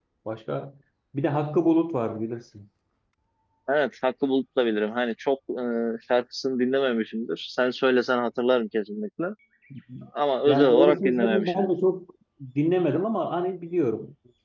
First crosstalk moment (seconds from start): 10 s

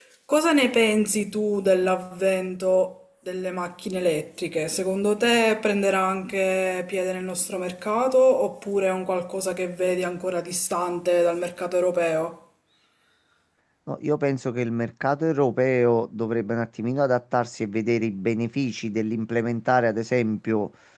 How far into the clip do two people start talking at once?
none

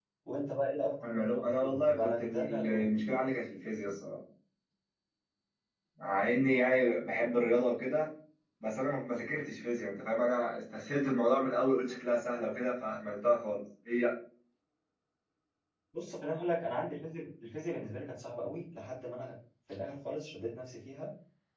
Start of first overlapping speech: 1 s

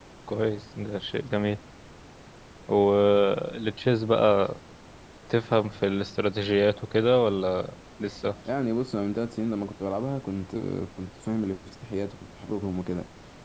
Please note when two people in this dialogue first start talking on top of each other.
none

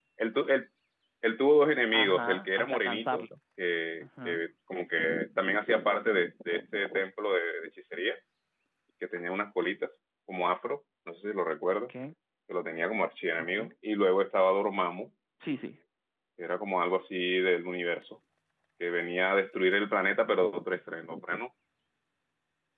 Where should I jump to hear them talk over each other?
2 s

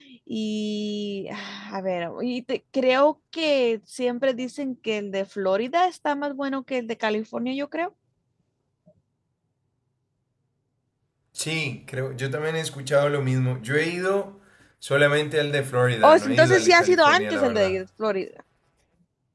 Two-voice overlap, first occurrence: 16 s

